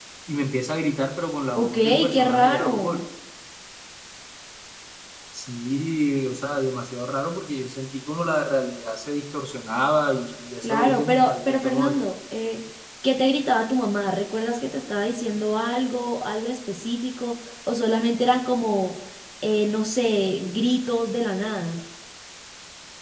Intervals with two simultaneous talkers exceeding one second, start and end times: 1.6-3.0, 10.6-12.0

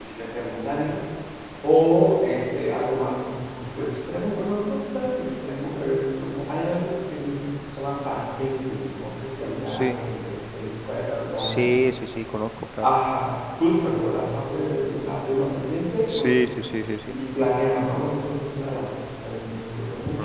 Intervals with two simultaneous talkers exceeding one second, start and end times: none

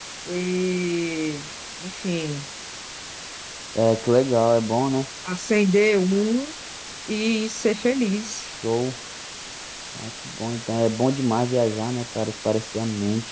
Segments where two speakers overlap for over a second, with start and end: none

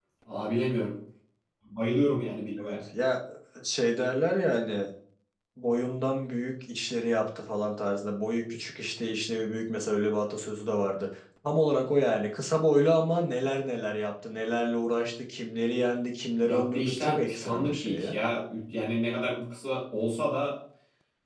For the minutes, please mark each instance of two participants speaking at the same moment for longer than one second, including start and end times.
16.4-18.2

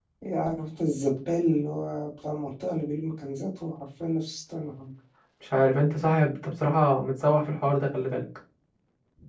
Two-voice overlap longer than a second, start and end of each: none

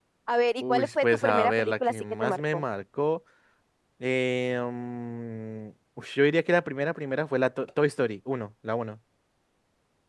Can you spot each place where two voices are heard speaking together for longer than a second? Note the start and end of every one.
0.6-2.6

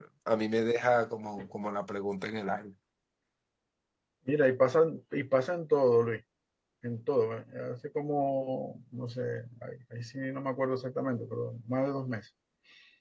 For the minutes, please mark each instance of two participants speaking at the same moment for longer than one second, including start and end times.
none

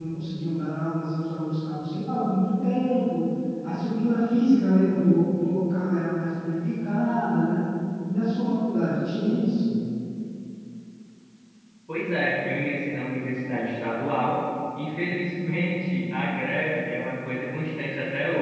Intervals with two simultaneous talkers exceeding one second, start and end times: none

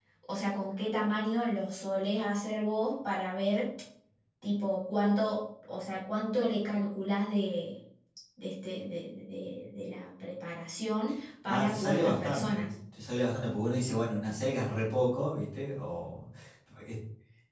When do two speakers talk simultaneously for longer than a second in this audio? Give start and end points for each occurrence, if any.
11.5-12.7

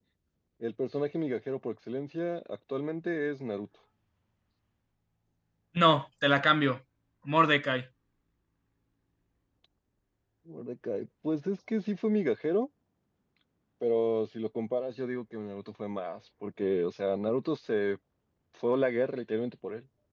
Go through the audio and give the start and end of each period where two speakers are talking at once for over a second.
none

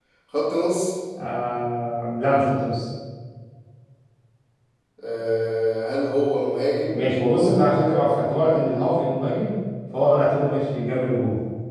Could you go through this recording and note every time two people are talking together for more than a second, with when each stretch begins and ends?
none

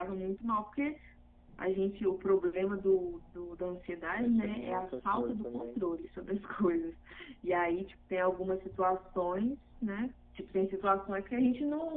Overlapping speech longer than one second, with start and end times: 4.2-5.8

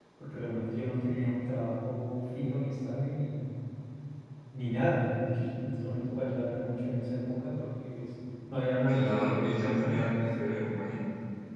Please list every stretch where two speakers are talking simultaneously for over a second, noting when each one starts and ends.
8.9-10.1

